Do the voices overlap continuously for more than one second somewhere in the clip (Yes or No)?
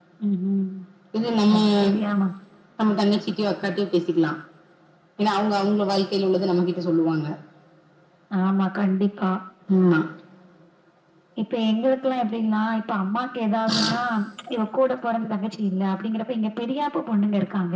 No